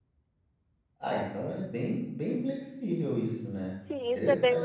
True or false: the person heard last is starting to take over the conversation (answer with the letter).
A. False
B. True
B